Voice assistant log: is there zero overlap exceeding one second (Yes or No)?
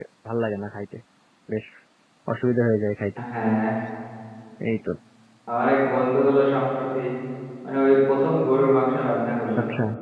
Yes